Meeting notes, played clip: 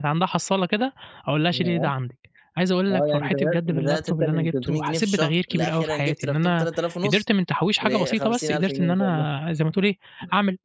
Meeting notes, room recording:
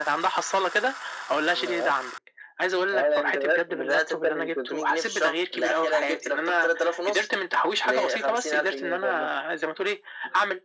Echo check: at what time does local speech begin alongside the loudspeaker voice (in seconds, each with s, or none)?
none